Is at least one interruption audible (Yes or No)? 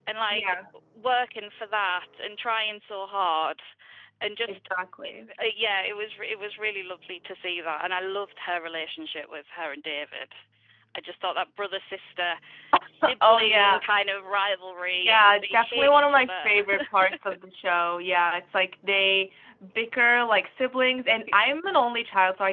Yes